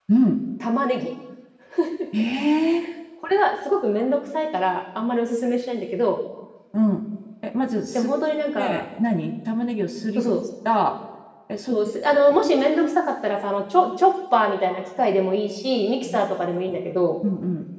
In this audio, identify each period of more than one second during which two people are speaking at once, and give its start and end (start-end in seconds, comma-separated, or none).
none